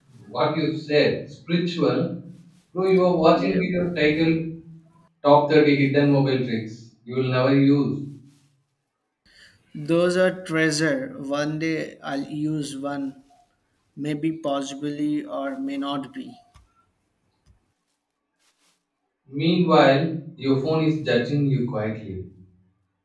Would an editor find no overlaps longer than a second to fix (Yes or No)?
Yes